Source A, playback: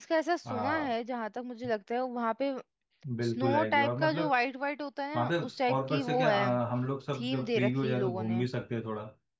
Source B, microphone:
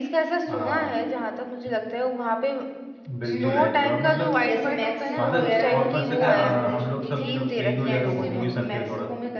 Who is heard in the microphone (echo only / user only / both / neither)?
both